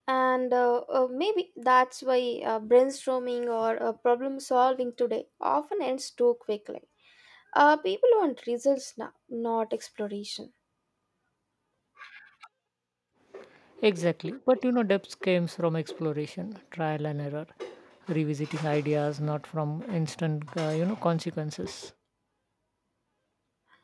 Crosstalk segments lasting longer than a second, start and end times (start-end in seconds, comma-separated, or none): none